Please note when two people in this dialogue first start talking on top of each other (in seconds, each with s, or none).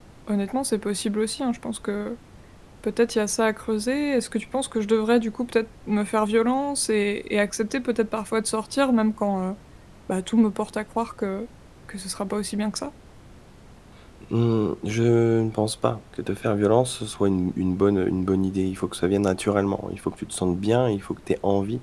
none